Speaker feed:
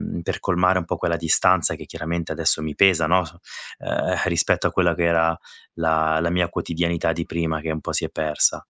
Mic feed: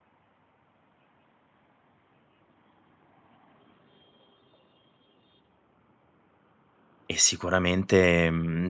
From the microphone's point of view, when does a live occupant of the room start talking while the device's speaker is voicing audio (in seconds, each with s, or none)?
7.1 s